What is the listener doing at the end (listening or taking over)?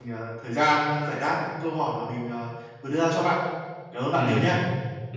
taking over